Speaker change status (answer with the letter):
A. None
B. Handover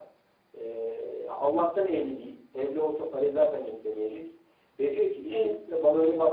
A